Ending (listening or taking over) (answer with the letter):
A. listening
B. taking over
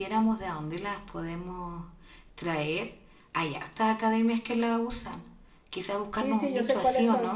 B